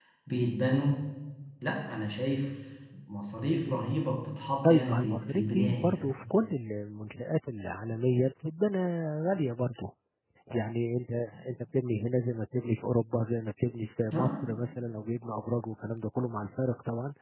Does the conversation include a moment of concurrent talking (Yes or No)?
Yes